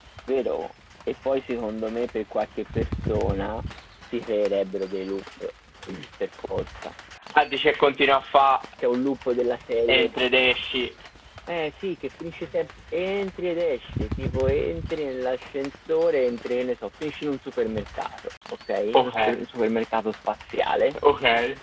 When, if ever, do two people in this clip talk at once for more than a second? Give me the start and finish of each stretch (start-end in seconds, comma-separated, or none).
none